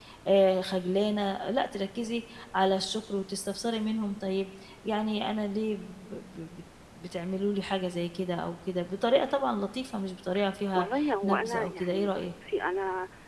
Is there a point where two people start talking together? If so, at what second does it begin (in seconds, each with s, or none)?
10.7 s